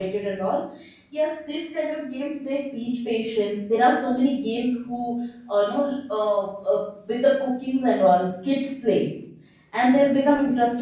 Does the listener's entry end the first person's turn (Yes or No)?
No